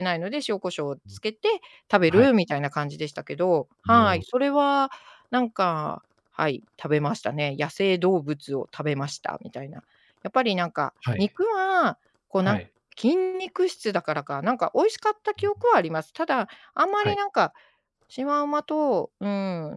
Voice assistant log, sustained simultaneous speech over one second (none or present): none